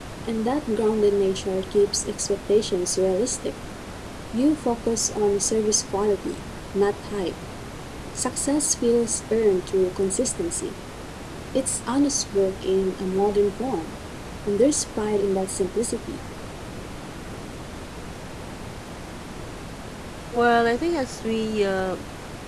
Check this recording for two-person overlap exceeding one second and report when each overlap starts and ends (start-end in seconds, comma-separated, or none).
none